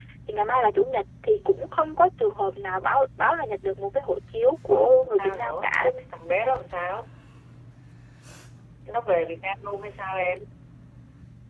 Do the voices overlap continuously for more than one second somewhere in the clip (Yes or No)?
Yes